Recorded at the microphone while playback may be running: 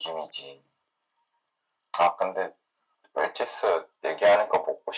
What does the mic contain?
echo only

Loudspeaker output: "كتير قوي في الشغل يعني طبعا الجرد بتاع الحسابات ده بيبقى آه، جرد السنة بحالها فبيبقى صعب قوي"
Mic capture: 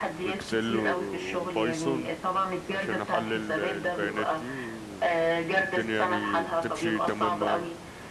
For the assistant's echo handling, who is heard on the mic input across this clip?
both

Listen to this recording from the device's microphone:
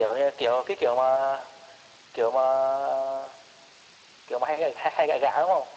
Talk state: echo only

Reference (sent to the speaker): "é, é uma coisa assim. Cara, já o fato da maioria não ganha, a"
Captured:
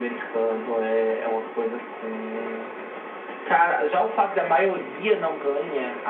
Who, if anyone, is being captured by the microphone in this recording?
echo only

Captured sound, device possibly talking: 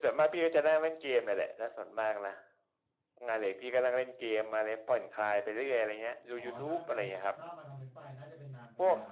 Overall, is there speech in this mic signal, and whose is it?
both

